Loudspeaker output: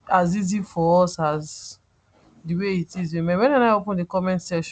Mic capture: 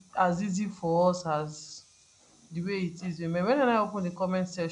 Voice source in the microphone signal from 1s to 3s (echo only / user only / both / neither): echo only